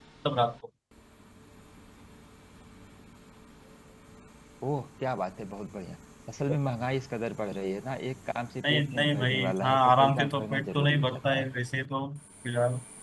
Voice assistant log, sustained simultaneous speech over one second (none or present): present